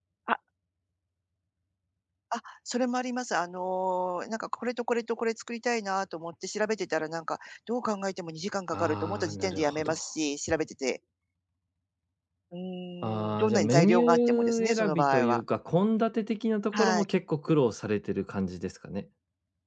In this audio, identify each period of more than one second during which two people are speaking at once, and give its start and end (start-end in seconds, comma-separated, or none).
8.7-10.0, 13.0-15.4